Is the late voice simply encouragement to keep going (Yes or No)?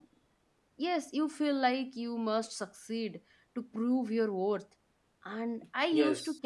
Yes